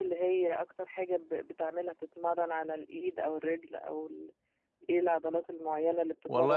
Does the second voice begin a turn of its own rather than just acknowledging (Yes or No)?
Yes